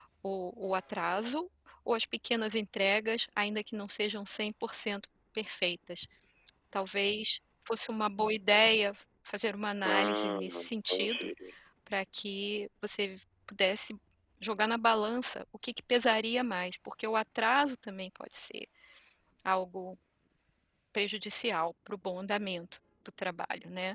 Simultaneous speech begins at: 9.8 s

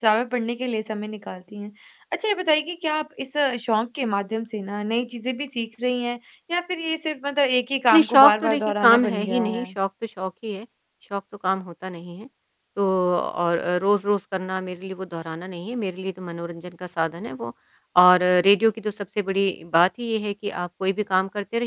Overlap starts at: 7.9 s

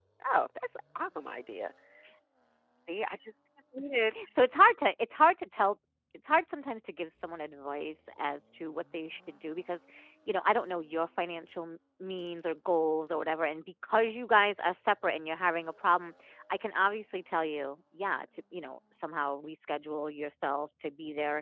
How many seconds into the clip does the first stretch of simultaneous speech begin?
none

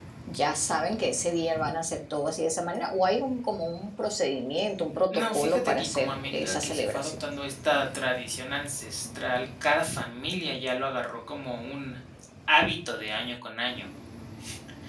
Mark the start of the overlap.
5.1 s

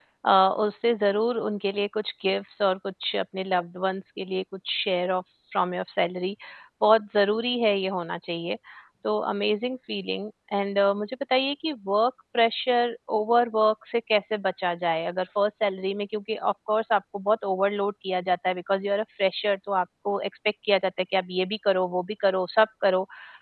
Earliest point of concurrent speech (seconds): none

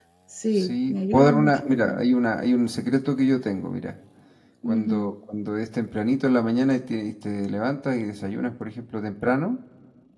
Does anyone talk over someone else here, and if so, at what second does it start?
0.6 s

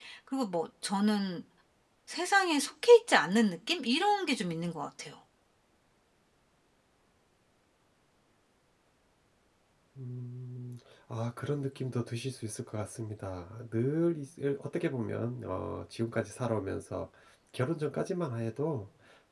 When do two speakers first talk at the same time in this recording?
none

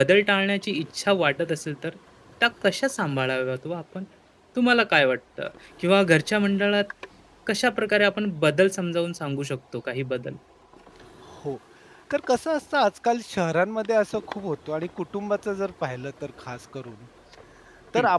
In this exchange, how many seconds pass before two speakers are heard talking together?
none

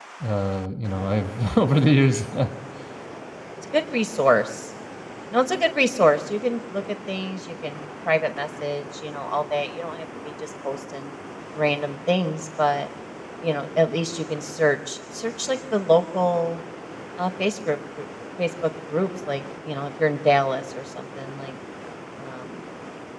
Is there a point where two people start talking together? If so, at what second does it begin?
none

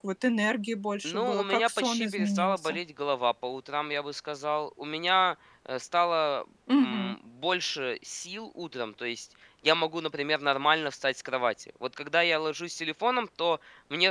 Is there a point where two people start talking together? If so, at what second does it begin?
1.0 s

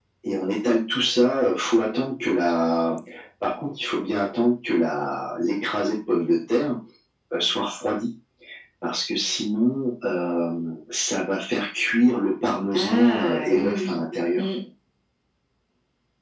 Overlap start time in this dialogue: 12.7 s

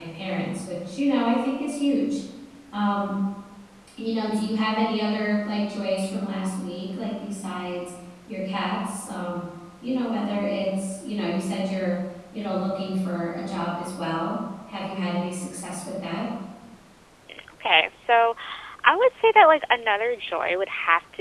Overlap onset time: none

